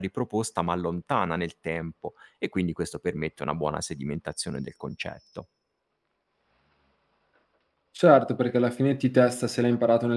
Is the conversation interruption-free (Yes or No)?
Yes